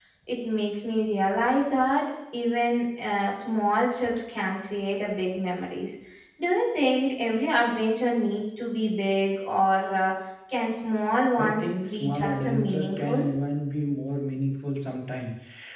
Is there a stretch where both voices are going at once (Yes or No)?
Yes